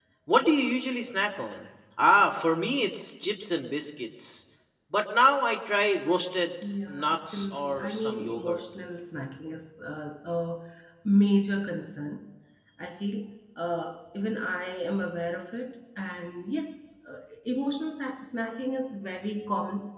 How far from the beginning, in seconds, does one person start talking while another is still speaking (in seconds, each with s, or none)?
6.9 s